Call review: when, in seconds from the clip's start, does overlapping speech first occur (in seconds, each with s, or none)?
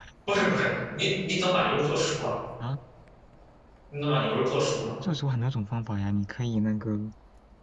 none